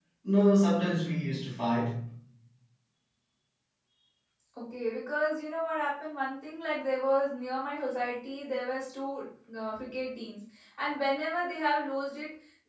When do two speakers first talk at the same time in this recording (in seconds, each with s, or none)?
none